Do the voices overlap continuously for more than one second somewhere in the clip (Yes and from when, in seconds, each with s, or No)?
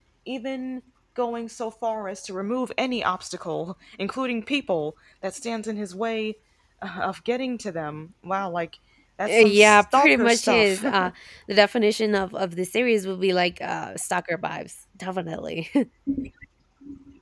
Yes, from 9.3 s